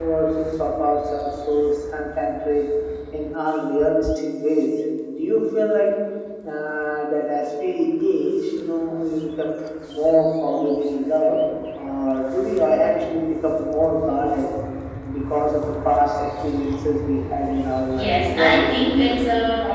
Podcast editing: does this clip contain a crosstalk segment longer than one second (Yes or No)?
Yes